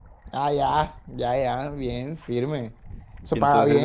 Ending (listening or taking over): taking over